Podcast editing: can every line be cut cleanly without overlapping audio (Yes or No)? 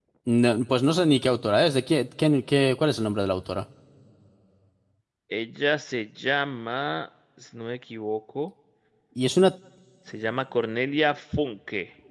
Yes